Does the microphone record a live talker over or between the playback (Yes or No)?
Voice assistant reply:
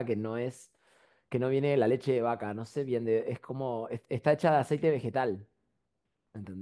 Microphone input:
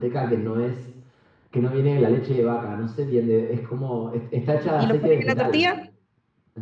Yes